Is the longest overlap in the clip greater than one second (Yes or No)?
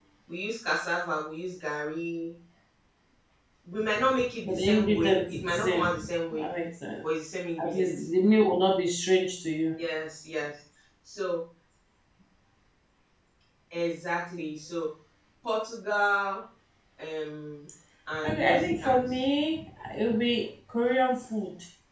Yes